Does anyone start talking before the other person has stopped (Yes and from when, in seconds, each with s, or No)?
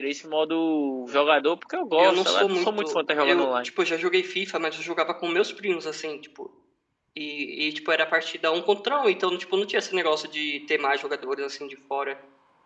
Yes, from 2.0 s